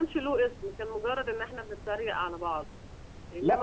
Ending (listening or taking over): taking over